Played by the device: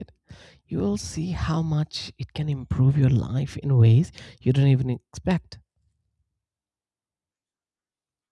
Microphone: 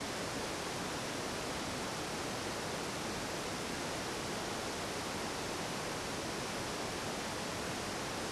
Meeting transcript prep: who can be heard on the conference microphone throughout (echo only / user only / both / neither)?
neither